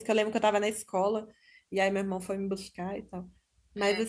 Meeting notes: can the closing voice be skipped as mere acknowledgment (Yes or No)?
Yes